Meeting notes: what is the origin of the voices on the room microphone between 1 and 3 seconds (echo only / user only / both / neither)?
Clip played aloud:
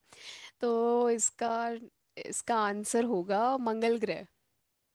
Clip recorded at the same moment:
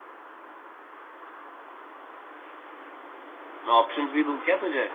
neither